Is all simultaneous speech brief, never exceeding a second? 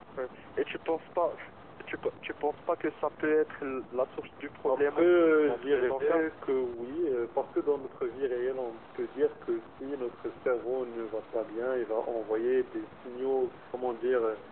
No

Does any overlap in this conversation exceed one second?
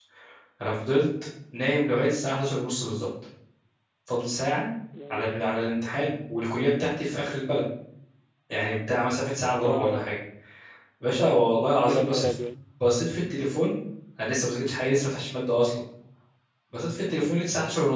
No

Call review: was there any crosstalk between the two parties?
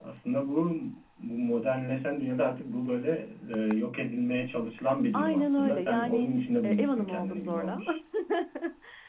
Yes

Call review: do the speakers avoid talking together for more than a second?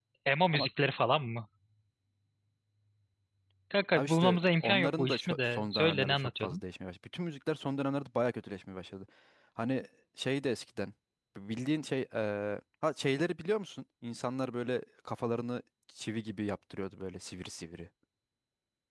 No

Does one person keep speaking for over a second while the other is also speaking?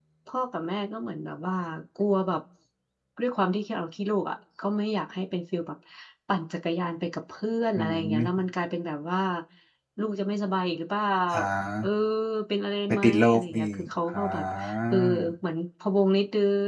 Yes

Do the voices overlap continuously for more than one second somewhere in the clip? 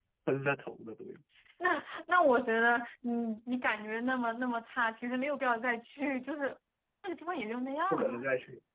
No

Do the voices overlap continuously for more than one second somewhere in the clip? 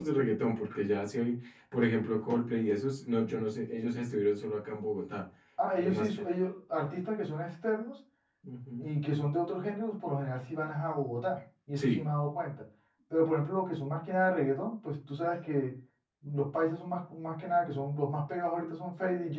No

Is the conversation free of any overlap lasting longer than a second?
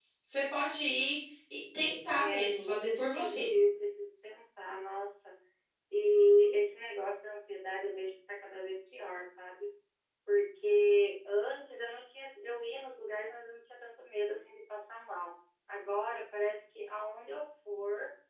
No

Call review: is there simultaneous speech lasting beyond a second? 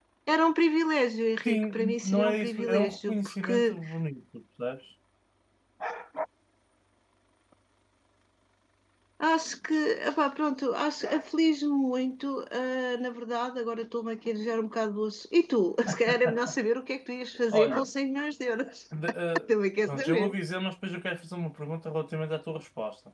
Yes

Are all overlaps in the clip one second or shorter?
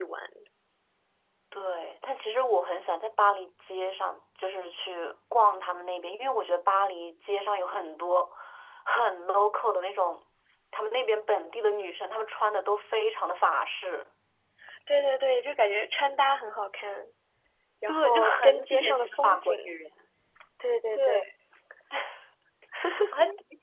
No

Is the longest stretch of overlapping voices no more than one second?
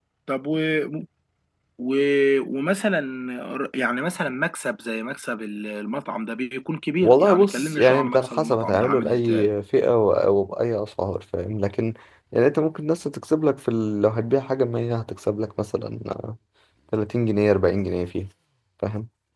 No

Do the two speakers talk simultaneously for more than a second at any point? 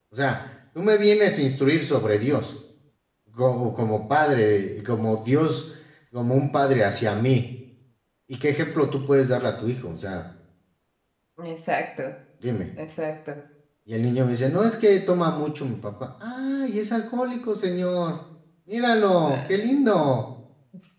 No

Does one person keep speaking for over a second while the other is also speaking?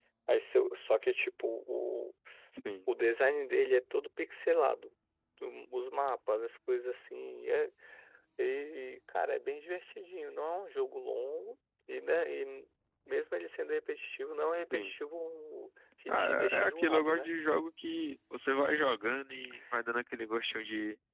Yes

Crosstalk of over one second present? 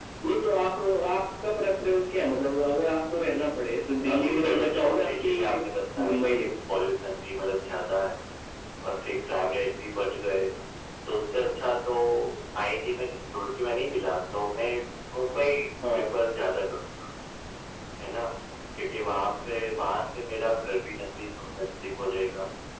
Yes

